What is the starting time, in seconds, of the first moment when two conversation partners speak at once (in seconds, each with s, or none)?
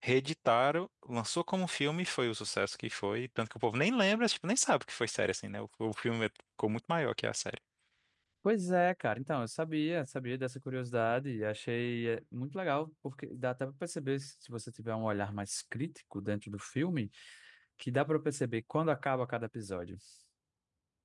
none